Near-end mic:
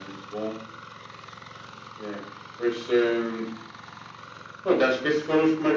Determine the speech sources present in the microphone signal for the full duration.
echo only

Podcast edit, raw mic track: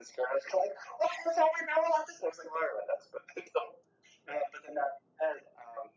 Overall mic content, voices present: echo only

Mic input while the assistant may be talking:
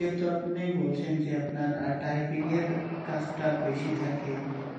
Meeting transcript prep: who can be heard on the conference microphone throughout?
user only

